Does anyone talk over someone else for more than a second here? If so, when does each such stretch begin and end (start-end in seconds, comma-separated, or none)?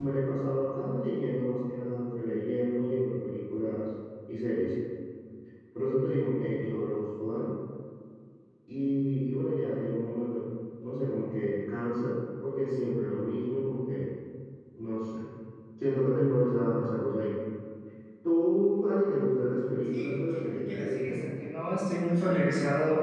19.9-21.2